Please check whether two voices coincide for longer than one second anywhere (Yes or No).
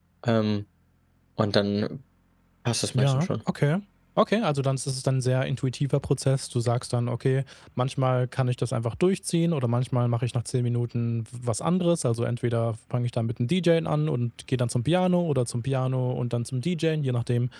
No